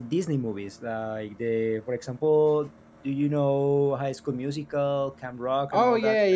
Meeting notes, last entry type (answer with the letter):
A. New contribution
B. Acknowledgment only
A